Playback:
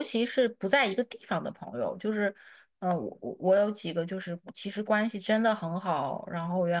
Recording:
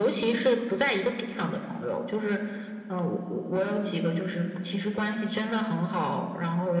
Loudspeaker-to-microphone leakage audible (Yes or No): Yes